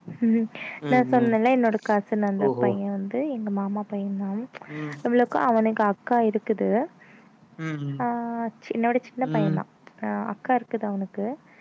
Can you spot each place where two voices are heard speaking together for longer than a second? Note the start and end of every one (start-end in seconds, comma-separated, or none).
none